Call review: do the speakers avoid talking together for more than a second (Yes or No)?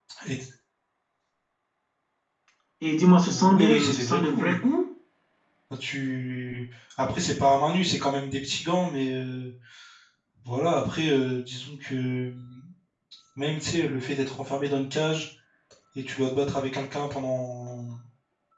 No